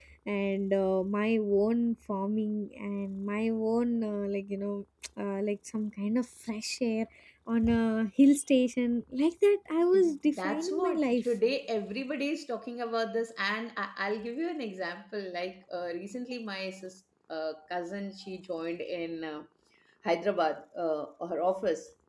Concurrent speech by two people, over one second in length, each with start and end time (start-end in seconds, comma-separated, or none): 9.9-11.2